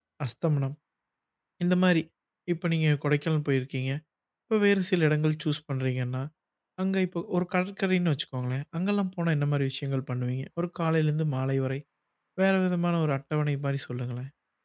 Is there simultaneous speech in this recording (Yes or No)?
No